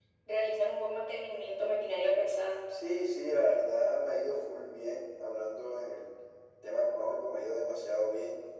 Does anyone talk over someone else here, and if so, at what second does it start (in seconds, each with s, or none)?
none